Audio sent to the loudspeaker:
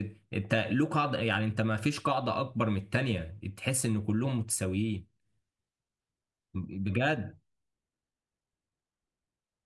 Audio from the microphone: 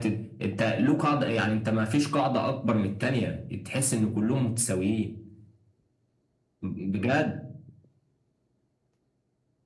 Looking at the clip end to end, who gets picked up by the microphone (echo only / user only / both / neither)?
echo only